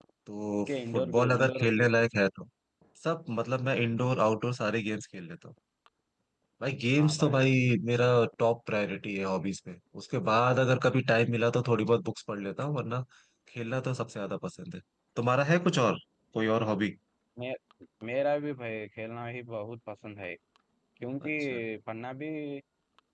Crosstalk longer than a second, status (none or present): present